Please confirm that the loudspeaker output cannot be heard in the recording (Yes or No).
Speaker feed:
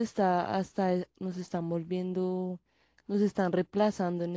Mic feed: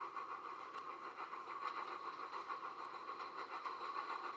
Yes